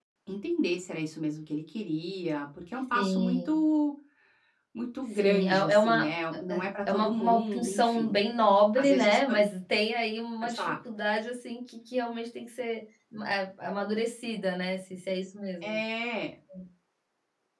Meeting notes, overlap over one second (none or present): present